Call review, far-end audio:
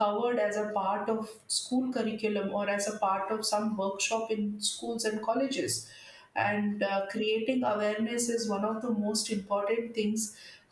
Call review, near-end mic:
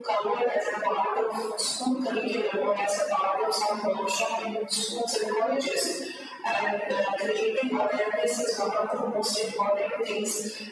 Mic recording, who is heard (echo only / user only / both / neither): echo only